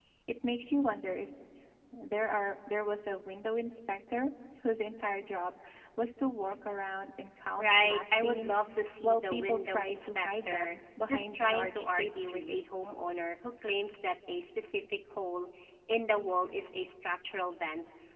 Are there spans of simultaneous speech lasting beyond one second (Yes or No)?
Yes